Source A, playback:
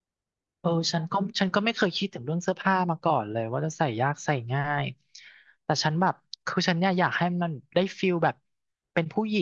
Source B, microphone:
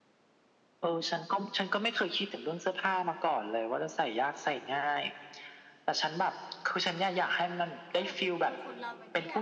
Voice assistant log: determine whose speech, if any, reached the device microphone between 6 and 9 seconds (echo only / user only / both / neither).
both